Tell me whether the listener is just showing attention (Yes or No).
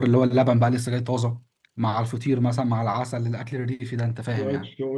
No